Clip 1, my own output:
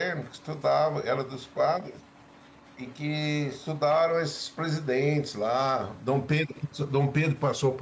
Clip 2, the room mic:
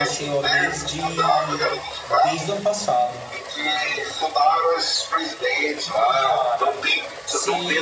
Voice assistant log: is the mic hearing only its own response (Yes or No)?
No